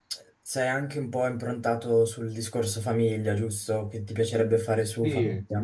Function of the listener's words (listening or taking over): taking over